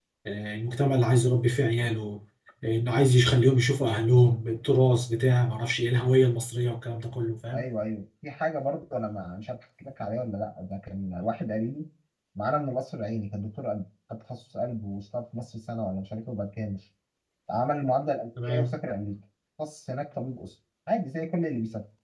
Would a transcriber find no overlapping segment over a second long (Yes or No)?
Yes